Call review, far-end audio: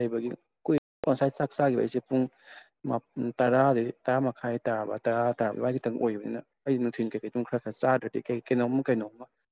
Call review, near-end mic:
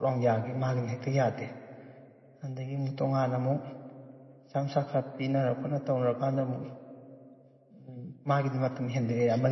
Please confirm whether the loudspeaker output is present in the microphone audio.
No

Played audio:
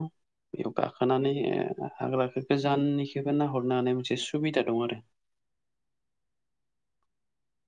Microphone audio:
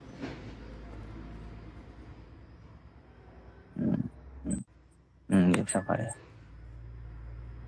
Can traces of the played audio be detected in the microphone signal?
No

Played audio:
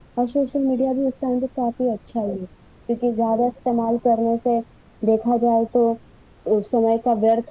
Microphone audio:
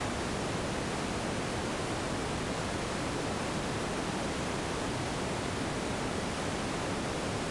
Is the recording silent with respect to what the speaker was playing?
Yes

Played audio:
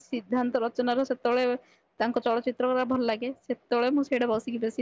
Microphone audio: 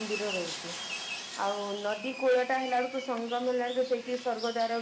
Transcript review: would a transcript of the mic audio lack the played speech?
Yes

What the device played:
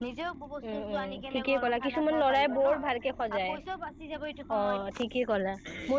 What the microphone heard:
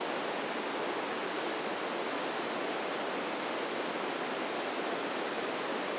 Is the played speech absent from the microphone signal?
Yes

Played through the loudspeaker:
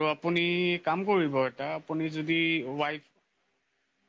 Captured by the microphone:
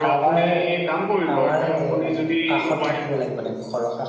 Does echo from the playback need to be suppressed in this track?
Yes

